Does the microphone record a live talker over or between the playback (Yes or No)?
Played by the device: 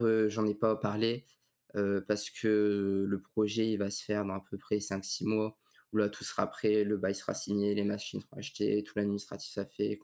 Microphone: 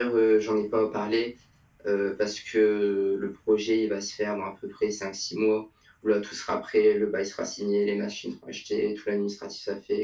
No